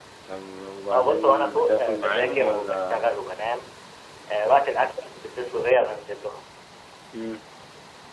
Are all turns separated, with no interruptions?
No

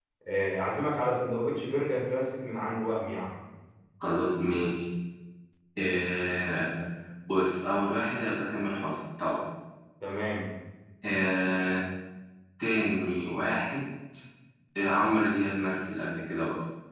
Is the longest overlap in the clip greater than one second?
No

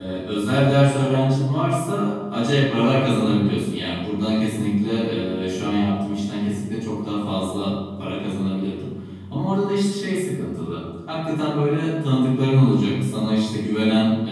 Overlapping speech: No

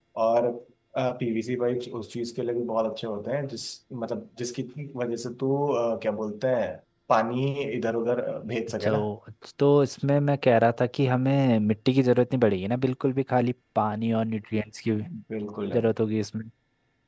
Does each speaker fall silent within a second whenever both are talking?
Yes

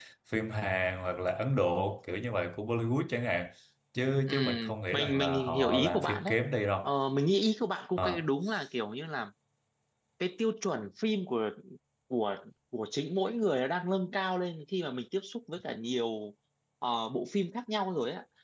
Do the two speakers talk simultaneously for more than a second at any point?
Yes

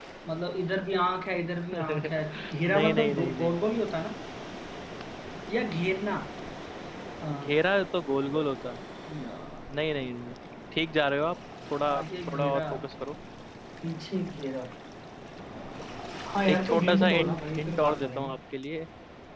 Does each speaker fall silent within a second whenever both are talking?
No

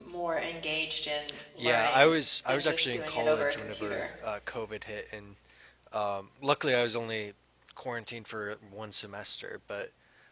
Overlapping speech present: Yes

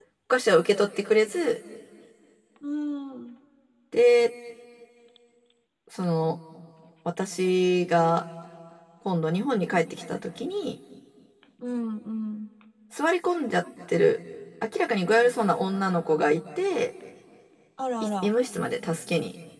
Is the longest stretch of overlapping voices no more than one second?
Yes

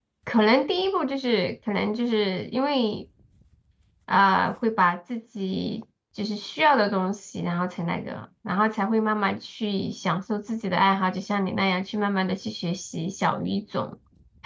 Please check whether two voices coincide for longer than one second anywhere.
No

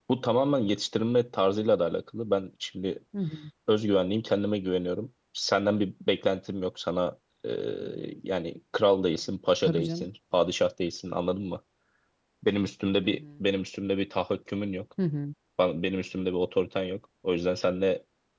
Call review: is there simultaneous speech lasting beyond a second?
No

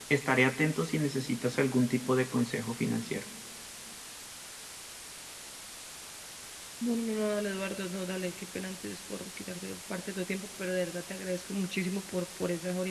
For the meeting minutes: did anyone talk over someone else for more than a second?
No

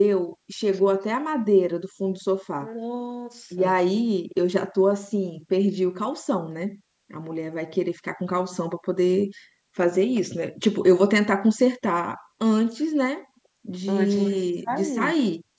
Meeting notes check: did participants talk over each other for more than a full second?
Yes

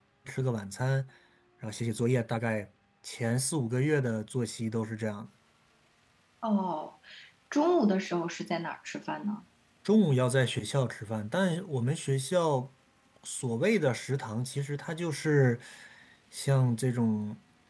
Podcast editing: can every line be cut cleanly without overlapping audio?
Yes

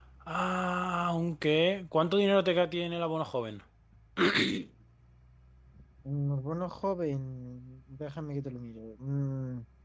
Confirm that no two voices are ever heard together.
Yes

